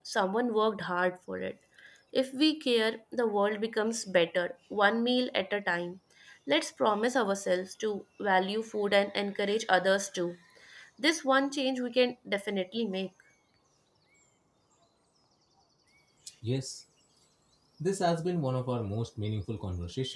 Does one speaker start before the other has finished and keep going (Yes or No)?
No